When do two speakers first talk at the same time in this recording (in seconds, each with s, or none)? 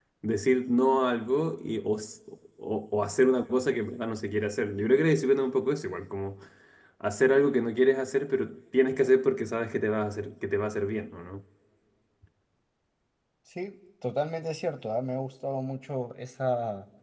none